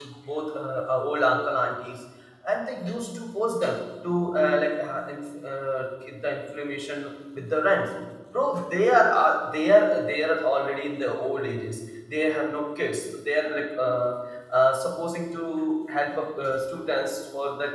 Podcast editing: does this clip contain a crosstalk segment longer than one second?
No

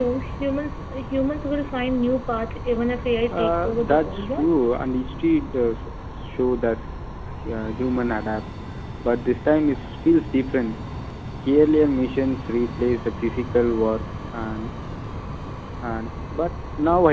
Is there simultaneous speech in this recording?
Yes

